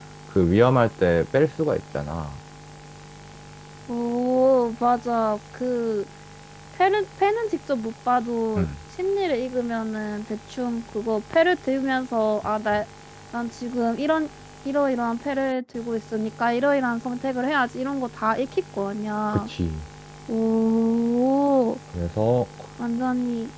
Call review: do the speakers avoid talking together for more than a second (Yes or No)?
Yes